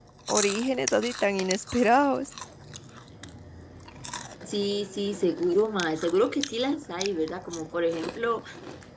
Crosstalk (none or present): none